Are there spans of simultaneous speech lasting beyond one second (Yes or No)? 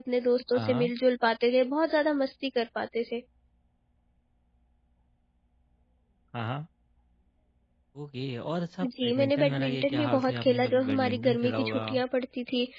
Yes